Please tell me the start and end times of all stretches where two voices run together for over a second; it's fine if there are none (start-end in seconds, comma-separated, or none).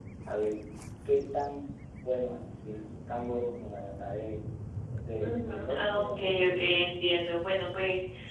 5.2-6.7